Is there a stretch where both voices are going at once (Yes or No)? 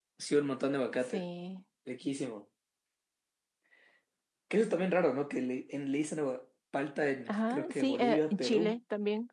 Yes